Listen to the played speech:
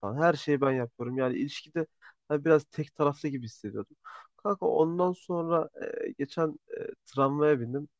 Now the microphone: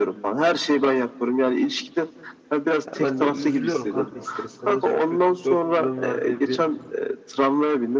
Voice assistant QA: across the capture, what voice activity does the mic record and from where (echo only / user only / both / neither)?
both